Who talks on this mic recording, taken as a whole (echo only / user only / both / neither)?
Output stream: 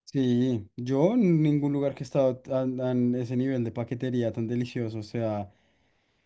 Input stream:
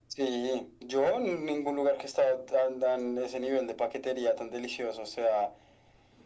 echo only